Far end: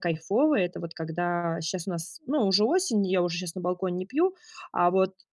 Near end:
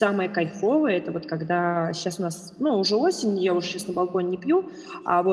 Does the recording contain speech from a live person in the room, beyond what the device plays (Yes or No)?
No